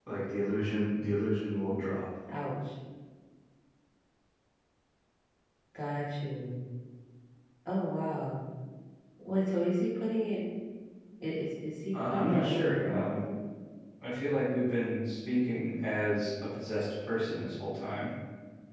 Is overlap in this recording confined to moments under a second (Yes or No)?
No